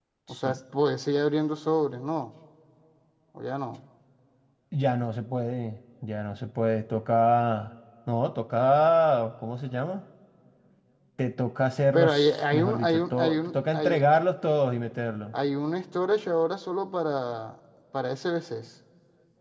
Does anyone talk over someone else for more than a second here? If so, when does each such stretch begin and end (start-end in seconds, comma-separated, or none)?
11.9-14.0